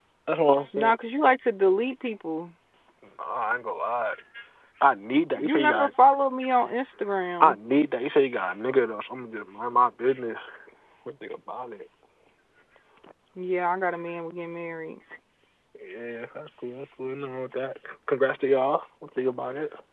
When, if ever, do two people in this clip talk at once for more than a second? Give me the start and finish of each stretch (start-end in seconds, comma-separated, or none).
none